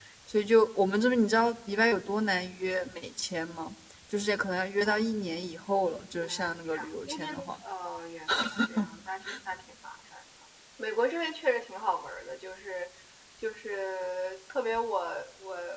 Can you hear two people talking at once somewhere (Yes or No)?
Yes